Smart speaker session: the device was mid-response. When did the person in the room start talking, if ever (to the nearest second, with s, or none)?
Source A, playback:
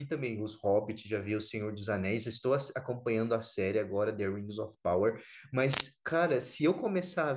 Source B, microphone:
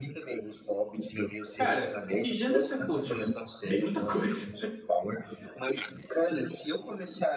2 s